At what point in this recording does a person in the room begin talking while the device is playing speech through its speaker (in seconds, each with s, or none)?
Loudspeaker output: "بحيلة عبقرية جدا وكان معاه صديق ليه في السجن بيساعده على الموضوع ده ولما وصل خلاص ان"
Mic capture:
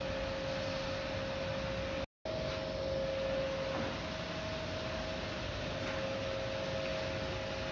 none